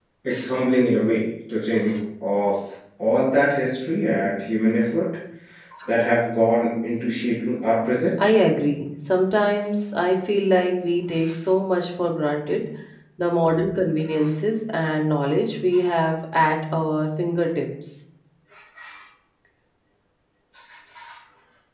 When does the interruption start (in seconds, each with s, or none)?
none